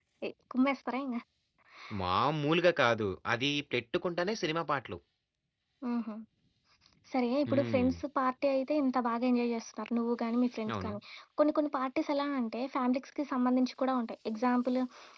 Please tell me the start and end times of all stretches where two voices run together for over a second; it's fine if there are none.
none

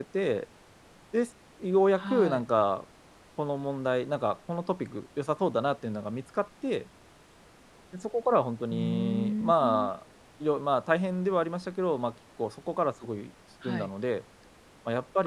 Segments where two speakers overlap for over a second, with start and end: 8.7-9.9

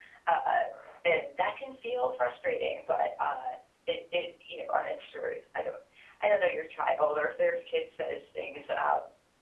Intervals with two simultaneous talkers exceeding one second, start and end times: none

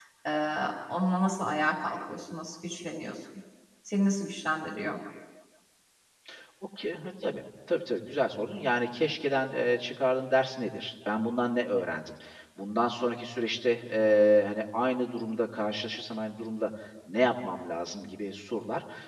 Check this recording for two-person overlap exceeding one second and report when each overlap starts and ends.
none

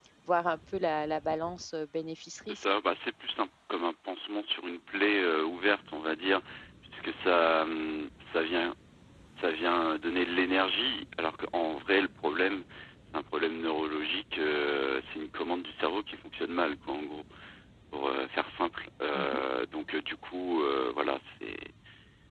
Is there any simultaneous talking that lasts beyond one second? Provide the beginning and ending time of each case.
none

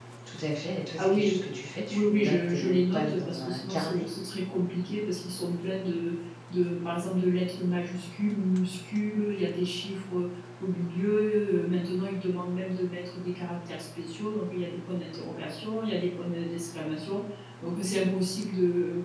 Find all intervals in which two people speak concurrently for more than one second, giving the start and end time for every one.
1.9-4.1

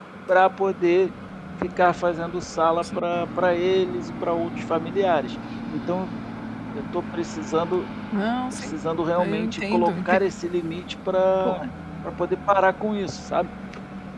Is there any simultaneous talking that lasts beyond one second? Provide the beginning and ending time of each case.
8.5-10.2

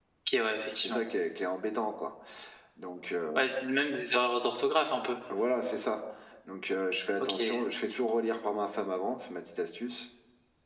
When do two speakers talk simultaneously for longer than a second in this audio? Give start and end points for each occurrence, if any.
none

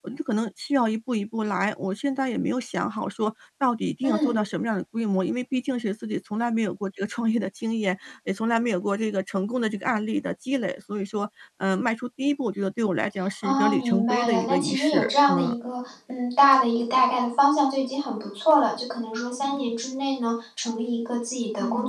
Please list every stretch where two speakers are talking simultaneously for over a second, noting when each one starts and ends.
13.4-15.5

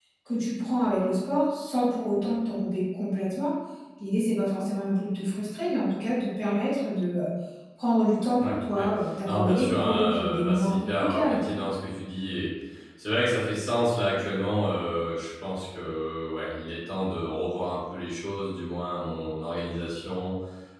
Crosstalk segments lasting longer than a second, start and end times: 9.3-11.5

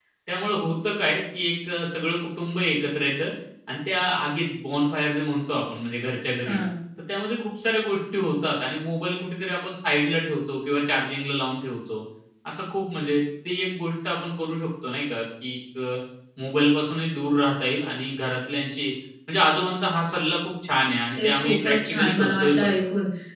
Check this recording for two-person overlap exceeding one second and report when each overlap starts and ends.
21.1-22.7

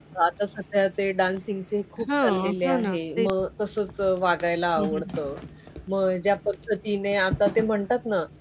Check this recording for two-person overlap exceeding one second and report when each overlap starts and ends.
2.0-3.3

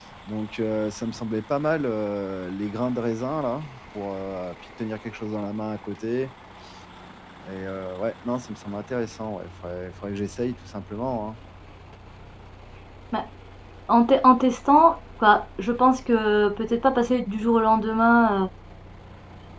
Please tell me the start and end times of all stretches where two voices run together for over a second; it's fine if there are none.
none

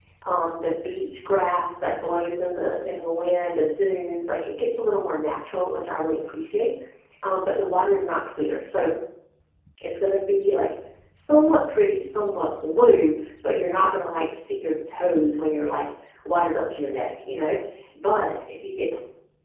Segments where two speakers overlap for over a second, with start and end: none

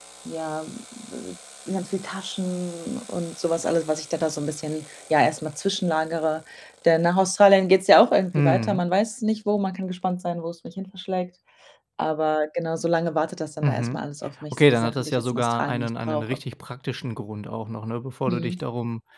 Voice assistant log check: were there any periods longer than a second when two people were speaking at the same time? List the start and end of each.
14.5-16.2

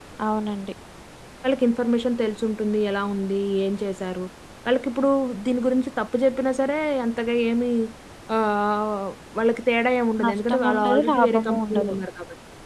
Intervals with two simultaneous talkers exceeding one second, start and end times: 10.2-11.9

